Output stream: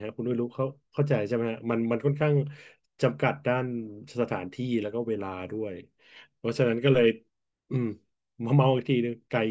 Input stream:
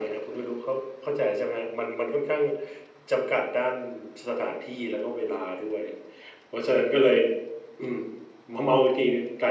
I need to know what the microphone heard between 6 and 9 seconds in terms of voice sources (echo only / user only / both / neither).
echo only